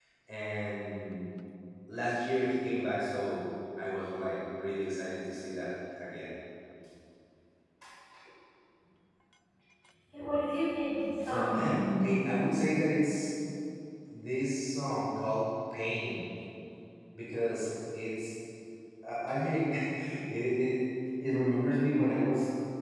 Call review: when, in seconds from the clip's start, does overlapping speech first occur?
11.1 s

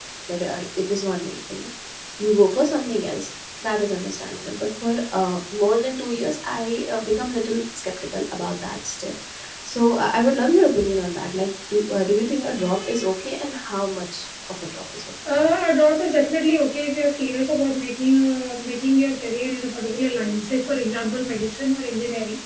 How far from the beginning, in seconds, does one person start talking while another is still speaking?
none

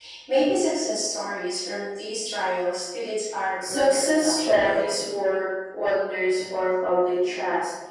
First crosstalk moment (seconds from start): 3.6 s

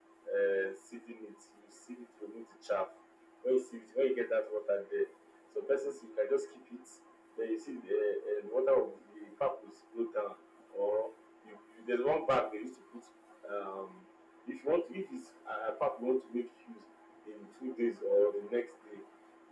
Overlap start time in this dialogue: none

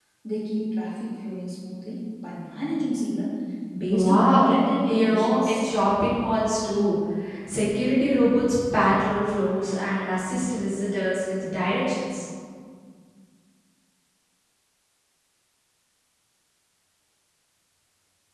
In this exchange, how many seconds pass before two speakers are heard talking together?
3.9 s

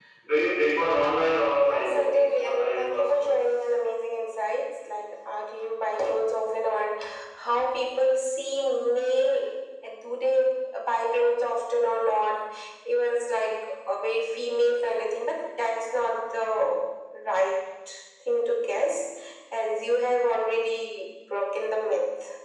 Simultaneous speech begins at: 1.6 s

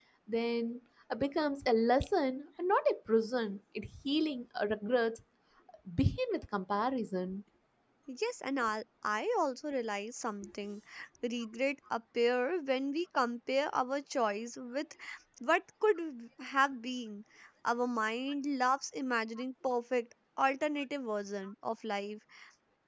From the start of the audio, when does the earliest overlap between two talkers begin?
none

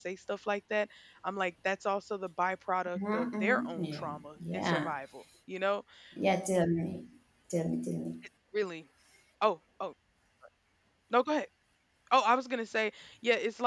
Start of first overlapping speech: 3.0 s

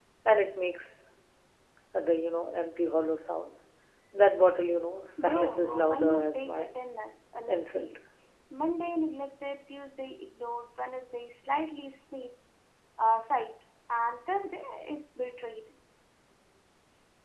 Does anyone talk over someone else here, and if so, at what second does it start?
5.2 s

